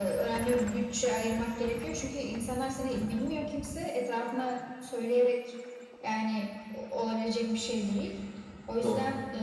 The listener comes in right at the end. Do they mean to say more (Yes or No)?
No